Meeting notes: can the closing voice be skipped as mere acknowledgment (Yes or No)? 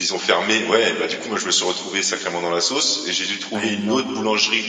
Yes